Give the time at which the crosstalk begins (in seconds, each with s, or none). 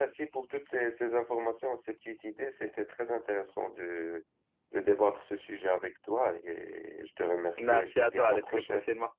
7.6 s